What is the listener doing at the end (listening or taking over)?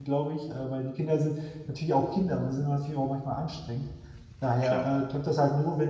listening